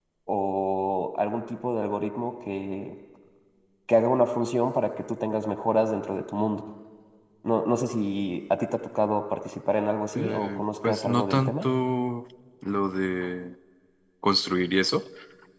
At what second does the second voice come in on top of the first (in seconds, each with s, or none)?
10.2 s